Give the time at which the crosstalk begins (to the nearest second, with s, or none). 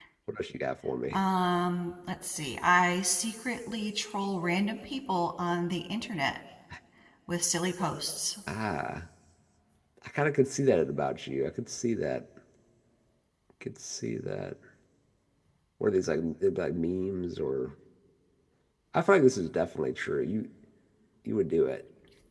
none